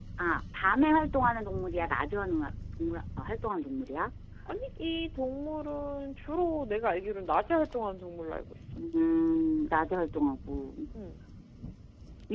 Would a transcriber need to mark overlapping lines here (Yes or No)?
No